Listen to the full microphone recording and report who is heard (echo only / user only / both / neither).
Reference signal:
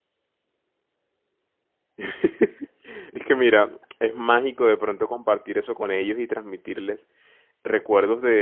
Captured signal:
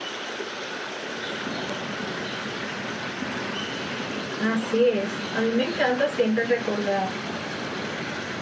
user only